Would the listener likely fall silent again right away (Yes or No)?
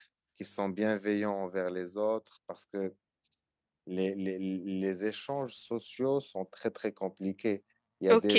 No